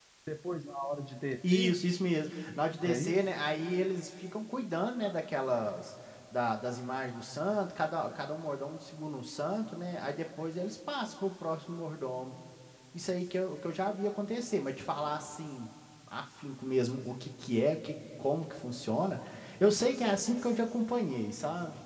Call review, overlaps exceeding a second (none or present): none